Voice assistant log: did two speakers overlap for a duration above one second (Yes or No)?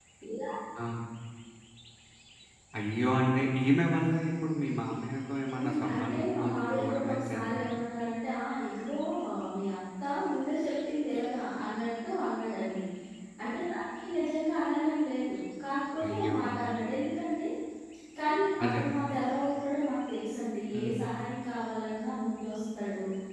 Yes